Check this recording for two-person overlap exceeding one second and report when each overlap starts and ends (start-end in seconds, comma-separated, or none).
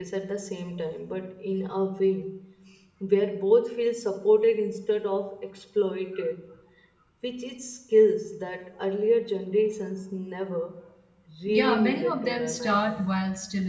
11.5-13.1